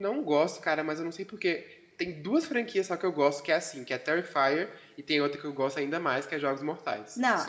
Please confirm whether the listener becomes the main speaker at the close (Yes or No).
Yes